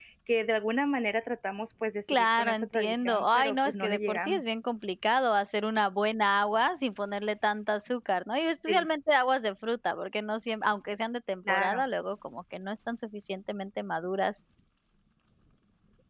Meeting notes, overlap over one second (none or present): present